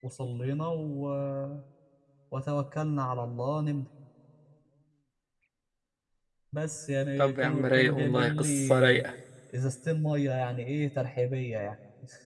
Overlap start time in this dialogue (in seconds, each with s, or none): 7.2 s